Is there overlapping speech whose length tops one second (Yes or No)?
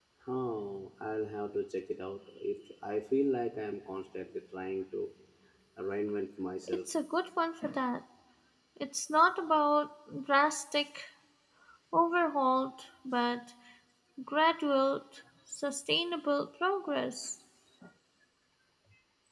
No